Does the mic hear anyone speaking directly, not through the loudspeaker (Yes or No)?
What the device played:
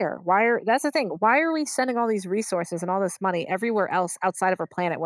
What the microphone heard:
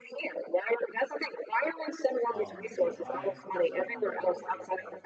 Yes